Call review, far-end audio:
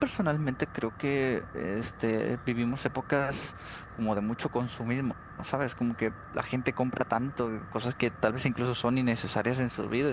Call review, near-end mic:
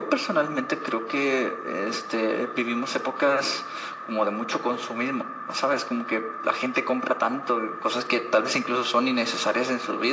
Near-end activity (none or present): none